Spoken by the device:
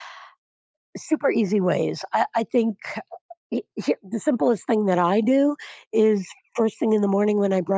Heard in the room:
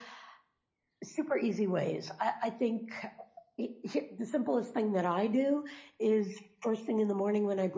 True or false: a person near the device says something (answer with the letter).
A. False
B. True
A